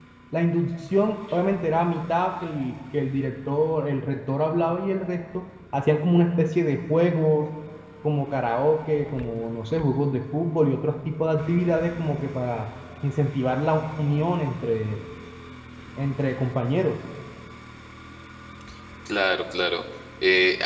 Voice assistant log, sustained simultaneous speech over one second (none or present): none